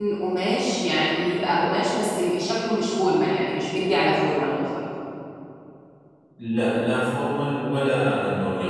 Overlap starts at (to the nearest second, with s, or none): none